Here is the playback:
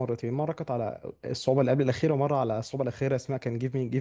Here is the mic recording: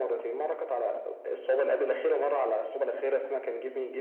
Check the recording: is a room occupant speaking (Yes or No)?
No